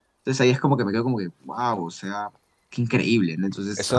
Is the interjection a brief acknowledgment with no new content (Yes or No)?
No